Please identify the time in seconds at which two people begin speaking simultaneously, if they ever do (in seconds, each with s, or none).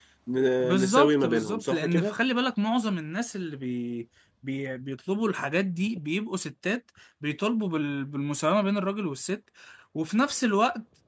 0.6 s